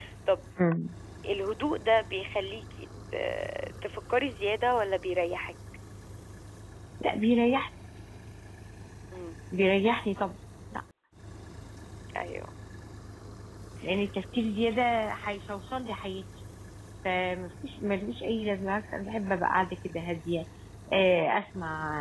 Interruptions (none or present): none